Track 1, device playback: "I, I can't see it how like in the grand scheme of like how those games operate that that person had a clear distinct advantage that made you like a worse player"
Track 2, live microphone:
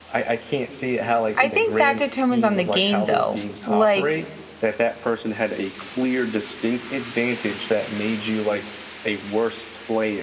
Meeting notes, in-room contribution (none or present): present